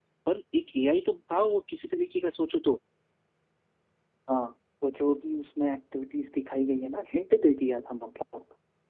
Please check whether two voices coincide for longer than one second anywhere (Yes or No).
No